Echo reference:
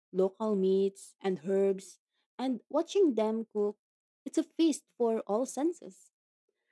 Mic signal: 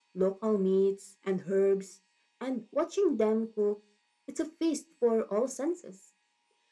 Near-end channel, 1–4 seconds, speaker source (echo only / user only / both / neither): echo only